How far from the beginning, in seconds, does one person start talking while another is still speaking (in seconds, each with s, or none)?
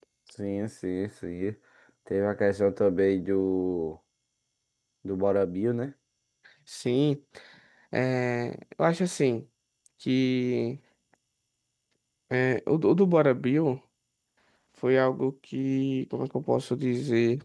none